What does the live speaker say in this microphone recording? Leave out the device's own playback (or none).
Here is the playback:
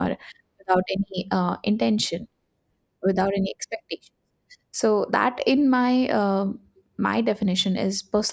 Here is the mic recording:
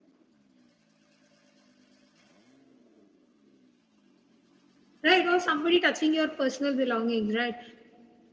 Right, or somebody touching your personal belongings, right?